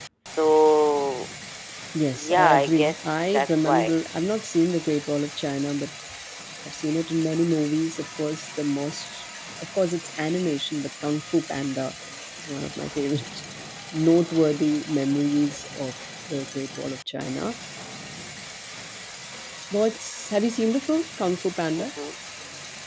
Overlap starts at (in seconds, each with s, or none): 2.1 s